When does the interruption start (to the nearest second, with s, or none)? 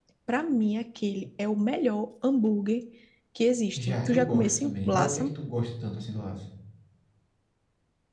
4 s